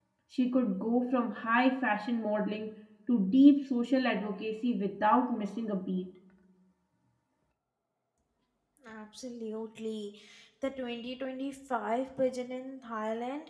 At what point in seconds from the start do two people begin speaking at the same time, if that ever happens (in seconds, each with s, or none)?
none